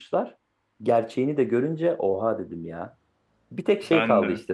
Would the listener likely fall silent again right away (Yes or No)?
Yes